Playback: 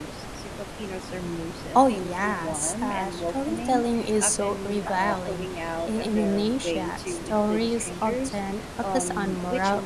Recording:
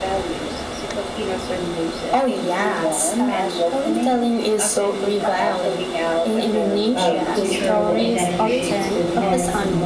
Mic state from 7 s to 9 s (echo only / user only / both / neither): both